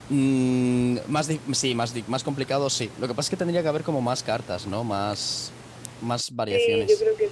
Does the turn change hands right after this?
Yes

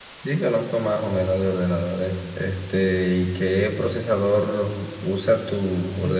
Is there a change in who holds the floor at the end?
Yes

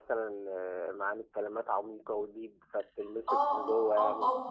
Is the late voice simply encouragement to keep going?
No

